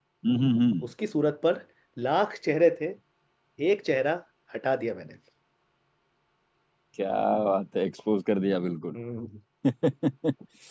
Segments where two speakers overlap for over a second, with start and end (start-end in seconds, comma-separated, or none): none